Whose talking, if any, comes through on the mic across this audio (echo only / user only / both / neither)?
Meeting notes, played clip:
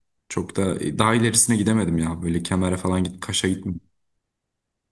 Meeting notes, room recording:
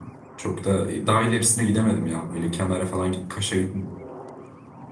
echo only